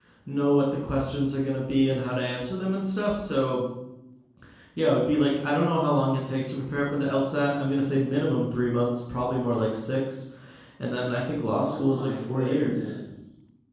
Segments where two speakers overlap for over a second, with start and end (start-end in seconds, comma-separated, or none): 11.6-12.9